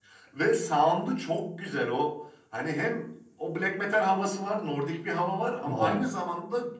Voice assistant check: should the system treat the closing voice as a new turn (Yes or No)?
No